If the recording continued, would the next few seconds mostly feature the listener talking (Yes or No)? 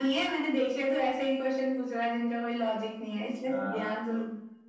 Yes